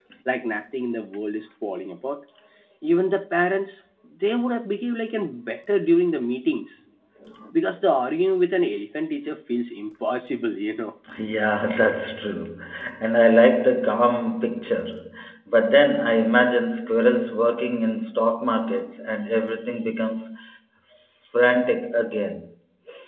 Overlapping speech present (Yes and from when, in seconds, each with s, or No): No